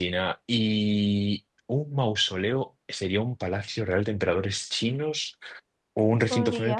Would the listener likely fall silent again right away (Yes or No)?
Yes